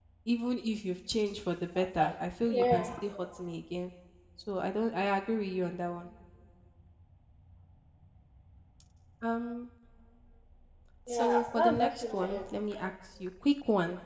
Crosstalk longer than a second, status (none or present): present